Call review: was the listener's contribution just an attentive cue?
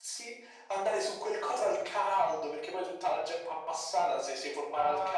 No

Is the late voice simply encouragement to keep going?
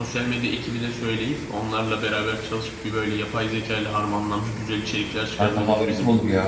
No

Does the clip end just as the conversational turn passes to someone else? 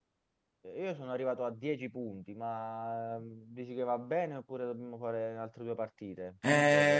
Yes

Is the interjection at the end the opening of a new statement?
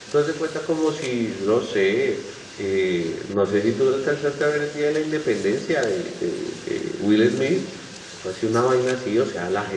No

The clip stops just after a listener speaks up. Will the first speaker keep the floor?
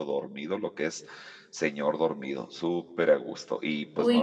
No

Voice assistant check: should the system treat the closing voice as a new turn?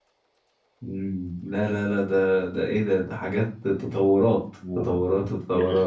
Yes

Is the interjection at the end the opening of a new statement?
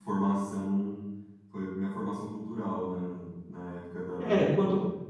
Yes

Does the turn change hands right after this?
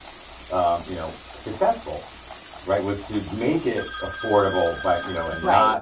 No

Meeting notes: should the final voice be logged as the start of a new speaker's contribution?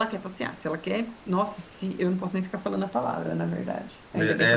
Yes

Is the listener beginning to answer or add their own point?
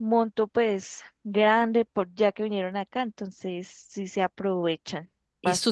Yes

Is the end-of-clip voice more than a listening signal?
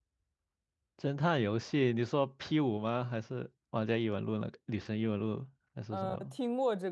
Yes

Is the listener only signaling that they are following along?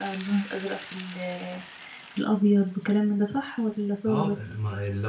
No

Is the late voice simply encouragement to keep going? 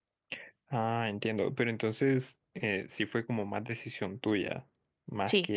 Yes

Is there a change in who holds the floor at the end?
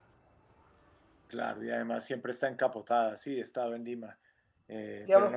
Yes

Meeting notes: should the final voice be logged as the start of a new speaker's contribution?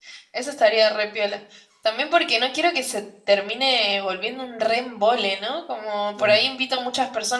No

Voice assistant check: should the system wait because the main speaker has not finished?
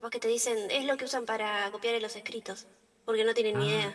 No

